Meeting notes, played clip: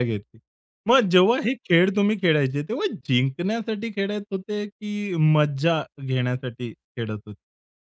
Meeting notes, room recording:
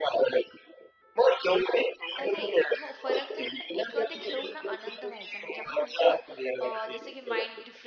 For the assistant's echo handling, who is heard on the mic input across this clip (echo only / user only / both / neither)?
both